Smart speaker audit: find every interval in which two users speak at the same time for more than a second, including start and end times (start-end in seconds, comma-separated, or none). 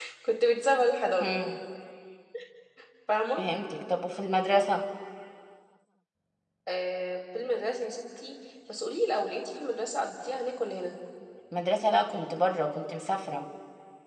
none